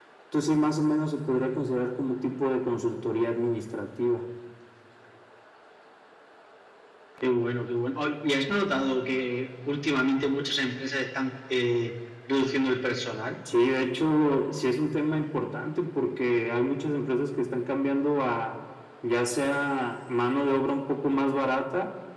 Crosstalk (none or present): none